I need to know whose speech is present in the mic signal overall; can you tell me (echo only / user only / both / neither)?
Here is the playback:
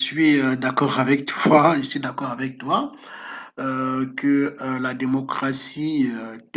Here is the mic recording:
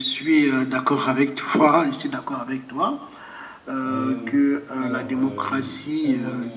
both